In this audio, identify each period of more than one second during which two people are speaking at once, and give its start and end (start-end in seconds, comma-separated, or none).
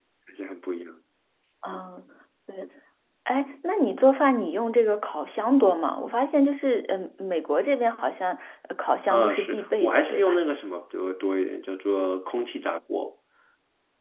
9.1-10.4